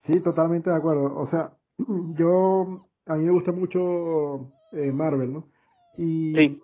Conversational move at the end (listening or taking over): listening